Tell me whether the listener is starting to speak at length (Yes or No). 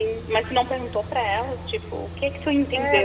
Yes